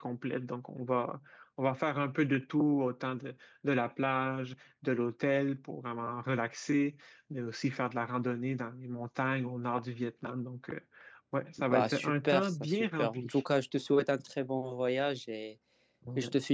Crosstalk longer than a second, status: present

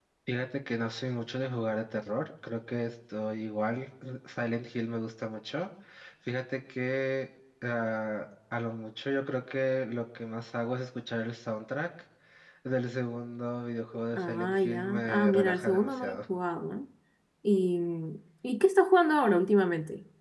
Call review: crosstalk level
present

